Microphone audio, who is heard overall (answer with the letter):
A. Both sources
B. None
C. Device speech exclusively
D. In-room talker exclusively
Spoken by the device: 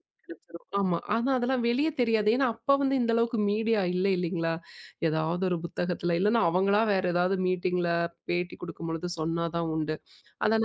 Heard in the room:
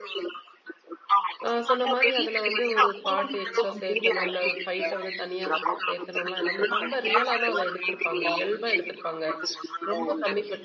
A